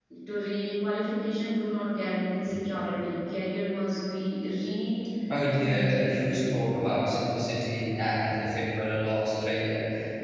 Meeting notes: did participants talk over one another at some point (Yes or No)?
Yes